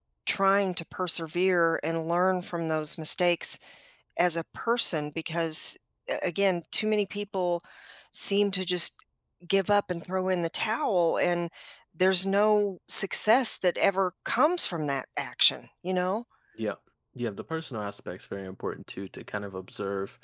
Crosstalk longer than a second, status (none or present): none